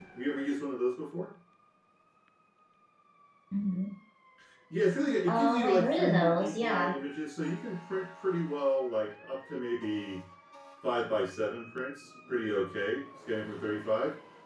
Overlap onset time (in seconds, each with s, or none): 5.3 s